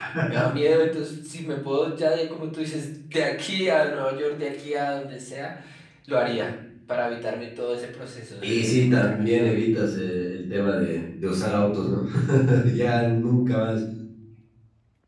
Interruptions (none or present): present